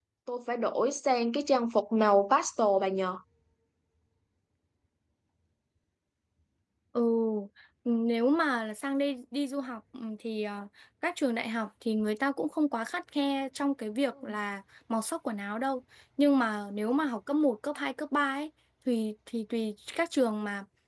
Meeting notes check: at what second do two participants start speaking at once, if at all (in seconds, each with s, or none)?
none